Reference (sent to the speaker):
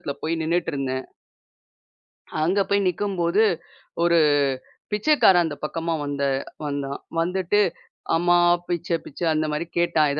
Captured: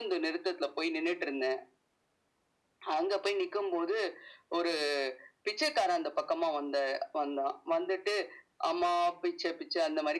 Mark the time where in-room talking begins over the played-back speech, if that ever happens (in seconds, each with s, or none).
none